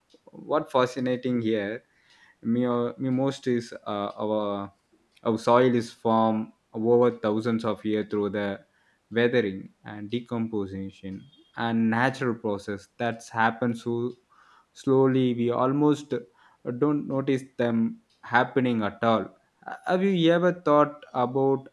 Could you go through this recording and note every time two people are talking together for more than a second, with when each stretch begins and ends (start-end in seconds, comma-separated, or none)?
none